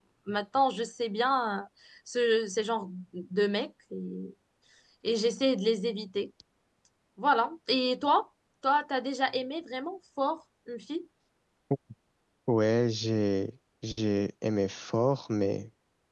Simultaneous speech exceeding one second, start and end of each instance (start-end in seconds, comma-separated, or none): none